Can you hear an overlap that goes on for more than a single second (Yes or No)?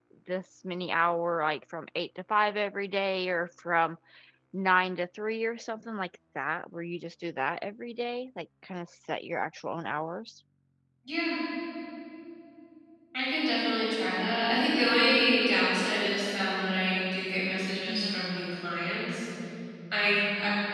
No